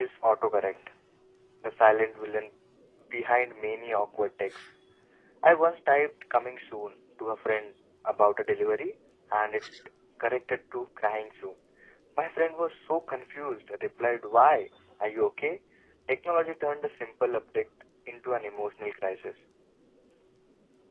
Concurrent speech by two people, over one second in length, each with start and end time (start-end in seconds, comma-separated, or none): none